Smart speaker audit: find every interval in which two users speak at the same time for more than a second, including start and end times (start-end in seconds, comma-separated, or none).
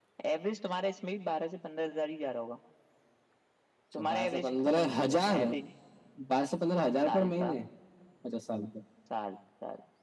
4.0-5.4